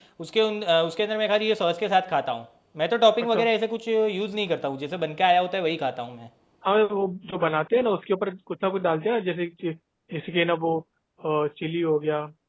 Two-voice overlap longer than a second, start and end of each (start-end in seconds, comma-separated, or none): none